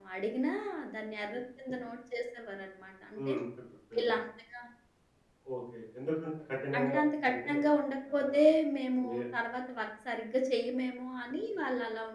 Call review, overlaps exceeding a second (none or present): none